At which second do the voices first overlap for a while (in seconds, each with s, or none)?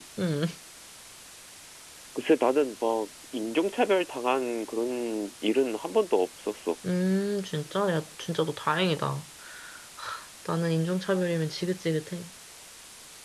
none